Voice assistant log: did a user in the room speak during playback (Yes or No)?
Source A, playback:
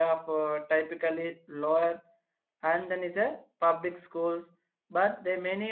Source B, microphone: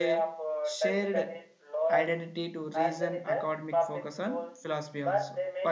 Yes